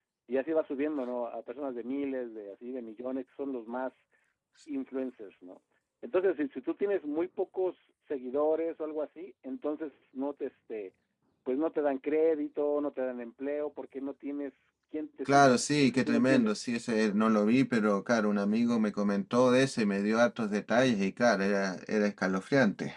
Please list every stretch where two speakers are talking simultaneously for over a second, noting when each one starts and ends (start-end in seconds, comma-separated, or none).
15.3-16.5